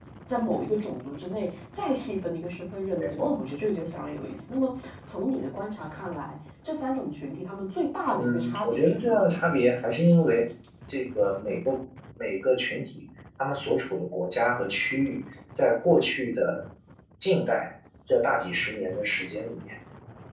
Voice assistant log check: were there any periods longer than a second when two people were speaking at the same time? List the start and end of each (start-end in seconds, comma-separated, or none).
8.1-9.4